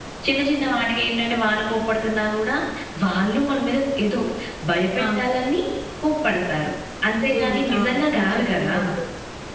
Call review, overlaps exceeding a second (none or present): present